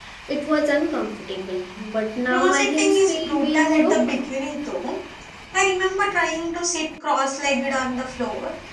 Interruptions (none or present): present